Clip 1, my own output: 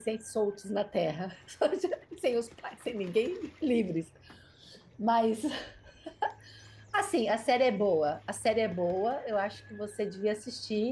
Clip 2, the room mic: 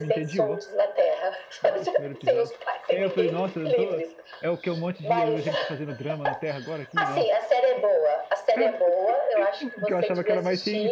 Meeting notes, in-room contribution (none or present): present